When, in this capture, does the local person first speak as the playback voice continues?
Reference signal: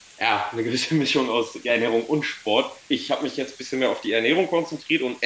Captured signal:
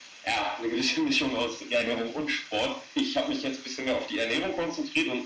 none

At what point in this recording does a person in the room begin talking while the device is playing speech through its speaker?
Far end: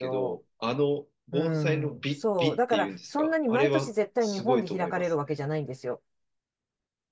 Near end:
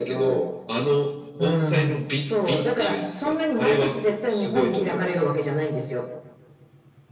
none

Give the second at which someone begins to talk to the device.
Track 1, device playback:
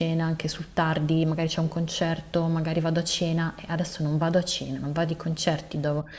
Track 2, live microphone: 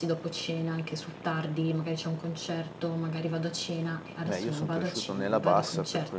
4 s

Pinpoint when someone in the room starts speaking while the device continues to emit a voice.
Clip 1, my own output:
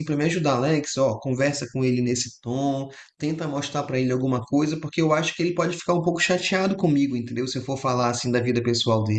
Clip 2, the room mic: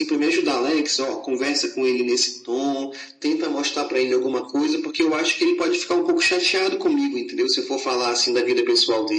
none

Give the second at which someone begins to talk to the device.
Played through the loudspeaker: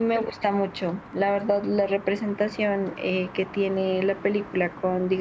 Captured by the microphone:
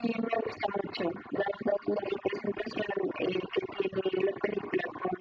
none

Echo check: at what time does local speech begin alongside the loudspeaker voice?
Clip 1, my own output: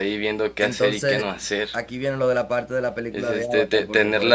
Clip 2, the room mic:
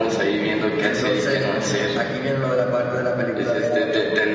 none

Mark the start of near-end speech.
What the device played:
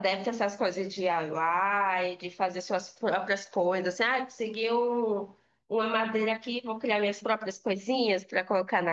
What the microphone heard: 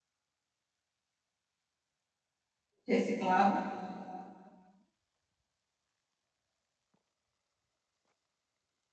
3 s

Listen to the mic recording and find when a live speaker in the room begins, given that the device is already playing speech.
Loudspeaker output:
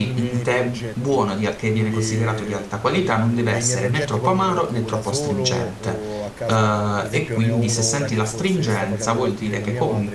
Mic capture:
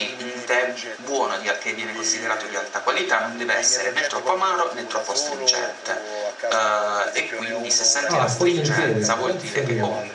8 s

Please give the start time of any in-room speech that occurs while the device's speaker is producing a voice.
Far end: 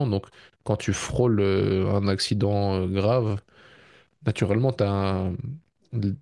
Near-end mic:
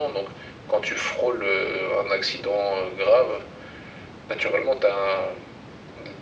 none

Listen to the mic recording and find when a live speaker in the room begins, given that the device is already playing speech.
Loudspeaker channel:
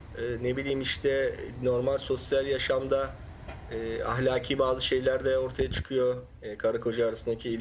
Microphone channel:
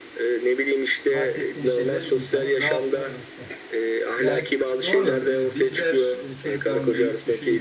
1 s

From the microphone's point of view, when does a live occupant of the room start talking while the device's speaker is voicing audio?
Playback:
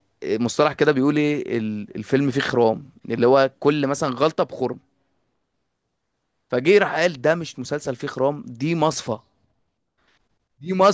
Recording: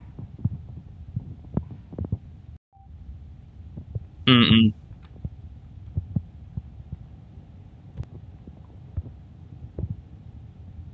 4 s

